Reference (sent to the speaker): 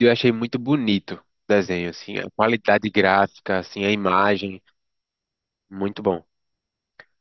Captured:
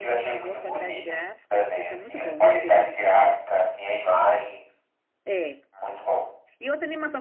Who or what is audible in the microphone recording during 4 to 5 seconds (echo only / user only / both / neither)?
echo only